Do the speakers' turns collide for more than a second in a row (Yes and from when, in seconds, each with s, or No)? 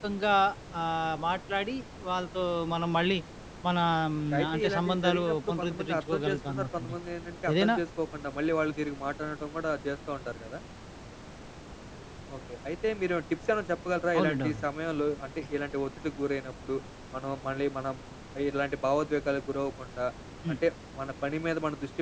Yes, from 4.3 s